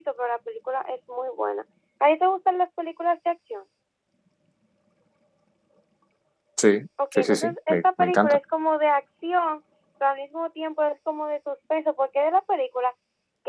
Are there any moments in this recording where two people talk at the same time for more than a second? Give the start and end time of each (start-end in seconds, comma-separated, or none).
7.1-8.4